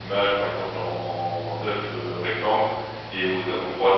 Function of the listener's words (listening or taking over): listening